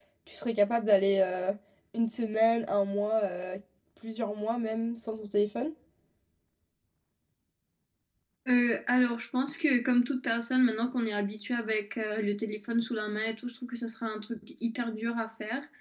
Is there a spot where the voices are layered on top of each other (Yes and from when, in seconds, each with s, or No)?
No